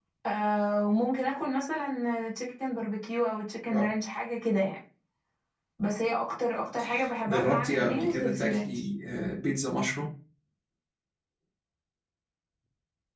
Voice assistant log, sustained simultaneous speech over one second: present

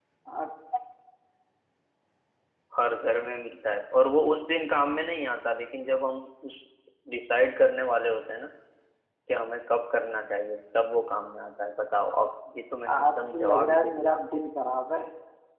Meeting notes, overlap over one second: present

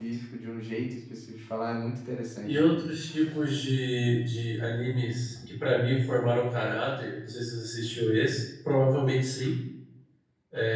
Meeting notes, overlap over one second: none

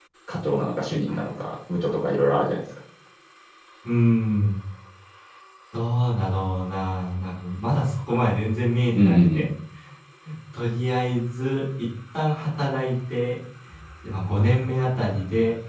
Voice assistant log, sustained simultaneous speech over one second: none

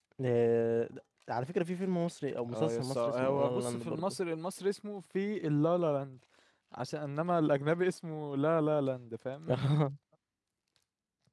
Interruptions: present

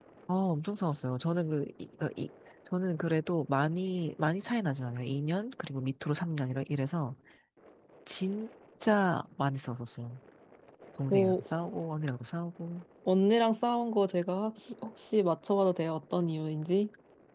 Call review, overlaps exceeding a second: none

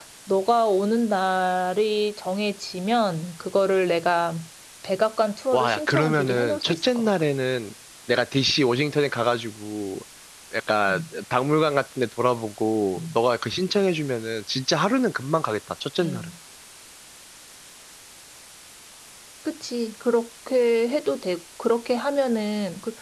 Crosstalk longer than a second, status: present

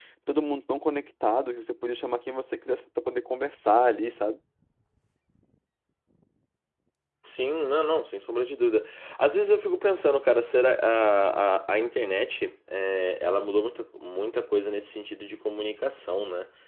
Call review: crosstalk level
none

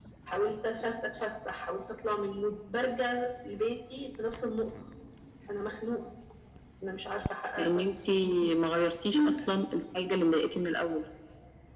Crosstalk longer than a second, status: none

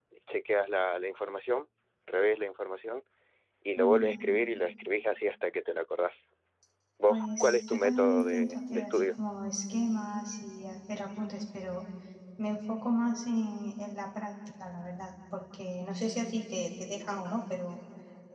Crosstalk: present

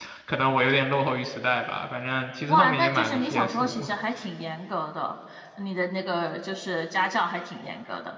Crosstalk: present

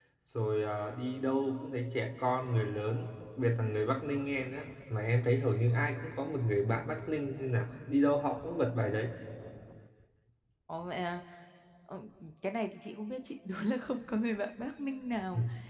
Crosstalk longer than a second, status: none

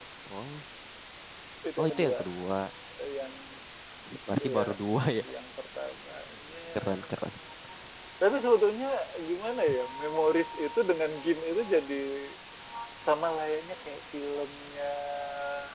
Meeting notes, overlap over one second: none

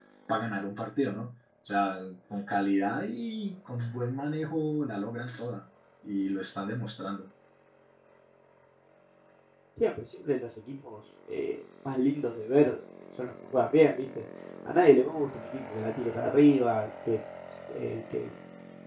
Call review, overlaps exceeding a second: none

